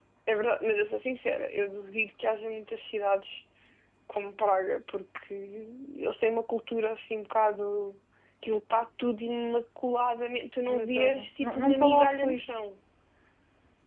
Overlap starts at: 11 s

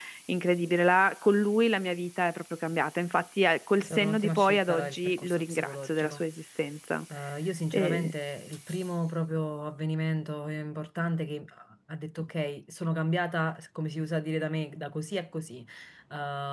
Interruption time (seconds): 4 s

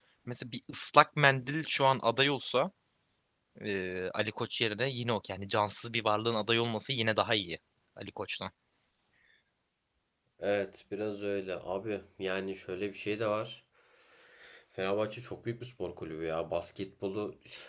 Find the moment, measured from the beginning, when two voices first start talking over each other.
none

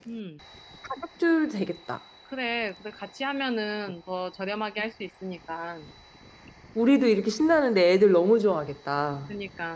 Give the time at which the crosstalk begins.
none

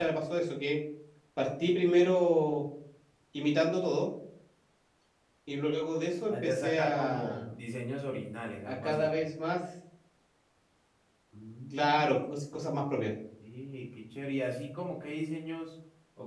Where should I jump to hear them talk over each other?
6 s

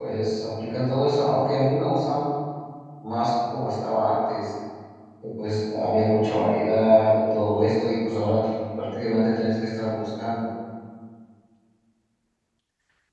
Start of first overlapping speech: none

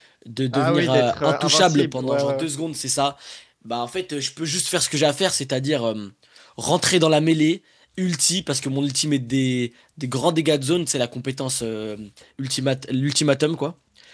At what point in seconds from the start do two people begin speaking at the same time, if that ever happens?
1 s

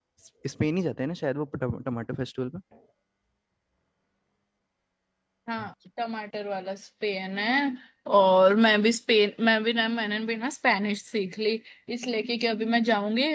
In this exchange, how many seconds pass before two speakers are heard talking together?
none

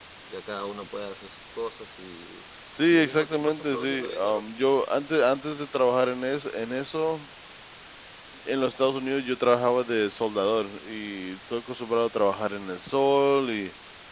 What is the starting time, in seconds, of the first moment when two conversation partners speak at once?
3 s

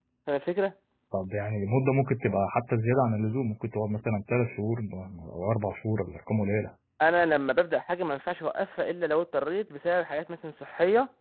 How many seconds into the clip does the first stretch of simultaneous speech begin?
none

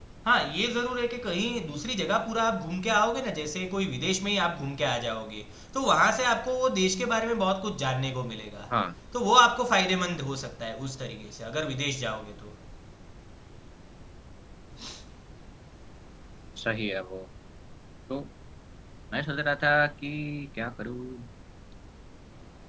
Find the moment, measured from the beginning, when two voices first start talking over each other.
none

